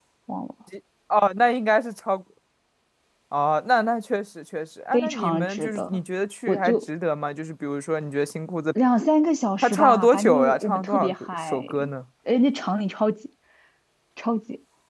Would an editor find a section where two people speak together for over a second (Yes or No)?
Yes